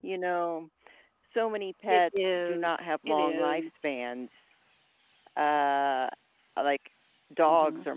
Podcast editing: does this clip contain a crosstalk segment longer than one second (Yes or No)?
Yes